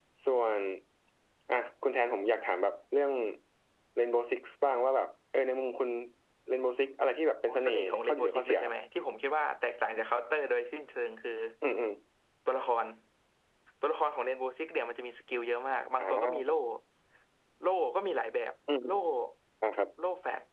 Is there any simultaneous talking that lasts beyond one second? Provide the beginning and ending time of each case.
7.5-8.7

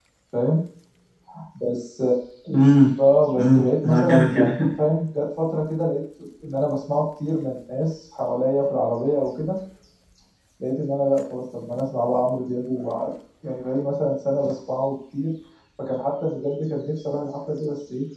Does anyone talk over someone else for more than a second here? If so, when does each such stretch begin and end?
3.4-4.7

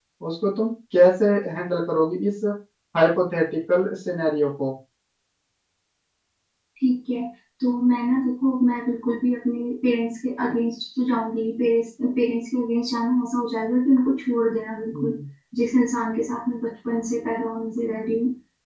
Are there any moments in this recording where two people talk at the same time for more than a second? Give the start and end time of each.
none

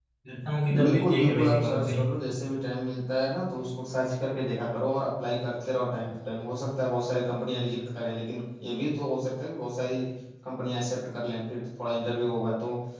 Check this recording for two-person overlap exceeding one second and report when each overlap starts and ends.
0.8-2.0

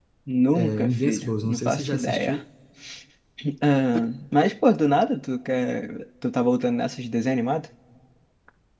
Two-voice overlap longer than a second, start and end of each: 0.5-2.4

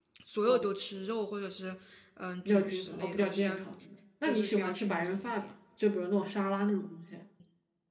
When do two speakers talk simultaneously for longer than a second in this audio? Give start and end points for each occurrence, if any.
2.4-3.7, 4.2-5.5

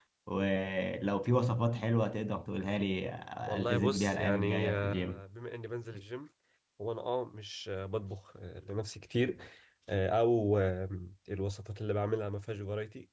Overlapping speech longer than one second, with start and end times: 3.5-5.2

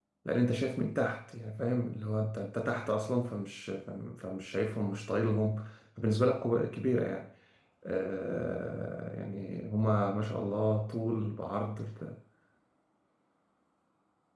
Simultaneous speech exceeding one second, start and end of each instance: none

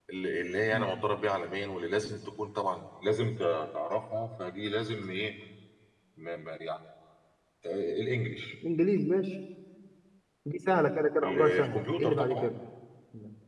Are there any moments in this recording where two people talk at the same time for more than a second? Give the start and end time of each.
11.2-12.5

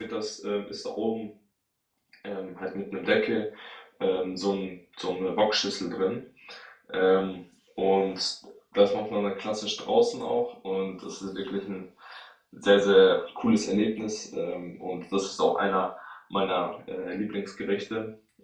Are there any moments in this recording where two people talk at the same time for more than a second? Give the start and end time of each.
none

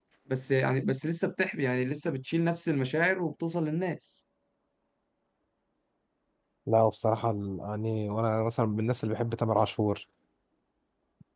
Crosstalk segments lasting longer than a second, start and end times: none

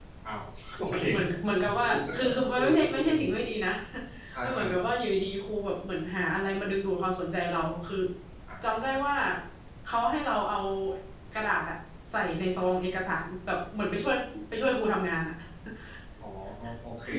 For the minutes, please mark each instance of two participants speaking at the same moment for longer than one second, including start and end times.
1.6-3.1

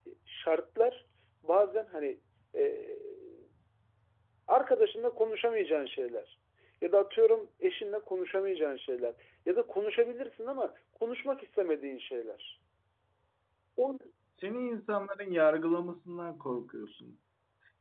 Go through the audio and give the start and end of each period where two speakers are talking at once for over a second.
none

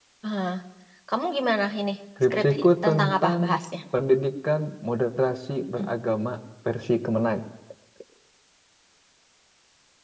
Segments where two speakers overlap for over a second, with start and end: 2.2-3.6

